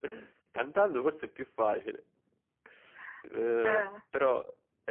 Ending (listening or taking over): listening